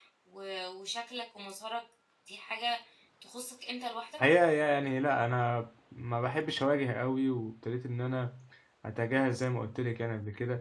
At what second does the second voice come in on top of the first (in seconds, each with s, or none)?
none